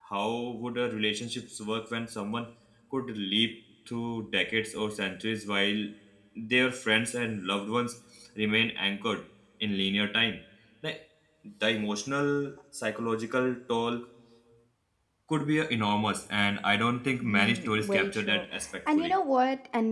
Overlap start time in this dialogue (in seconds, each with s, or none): 17.2 s